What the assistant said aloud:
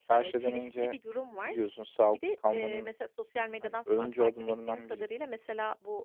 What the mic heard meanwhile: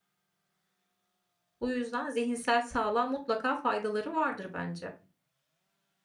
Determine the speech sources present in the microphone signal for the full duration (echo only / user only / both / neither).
user only